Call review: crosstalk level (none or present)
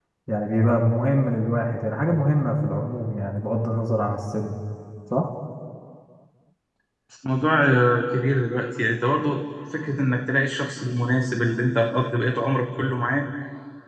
none